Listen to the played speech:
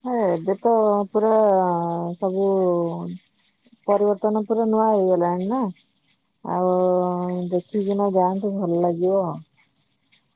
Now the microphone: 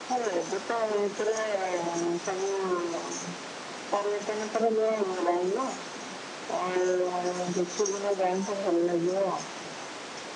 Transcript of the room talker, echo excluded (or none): none